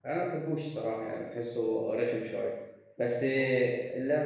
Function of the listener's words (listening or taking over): listening